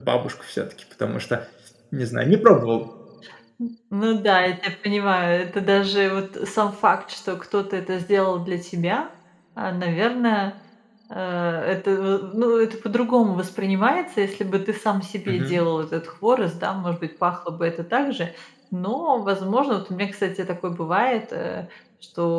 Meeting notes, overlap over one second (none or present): none